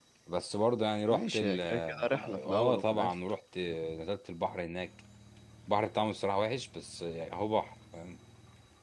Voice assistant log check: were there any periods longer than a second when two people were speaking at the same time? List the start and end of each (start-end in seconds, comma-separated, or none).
1.1-3.2